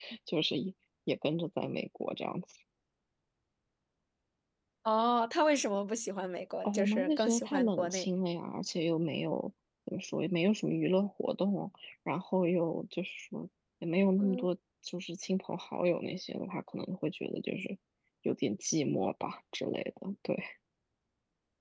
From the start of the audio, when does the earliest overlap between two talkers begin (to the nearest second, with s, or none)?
7 s